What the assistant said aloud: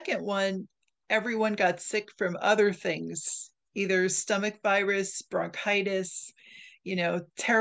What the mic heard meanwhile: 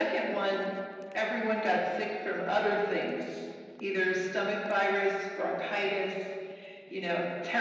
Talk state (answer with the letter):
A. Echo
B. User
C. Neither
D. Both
A